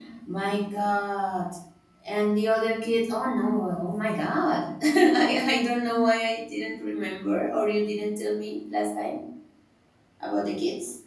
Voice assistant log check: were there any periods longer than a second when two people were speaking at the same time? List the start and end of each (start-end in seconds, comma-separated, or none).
none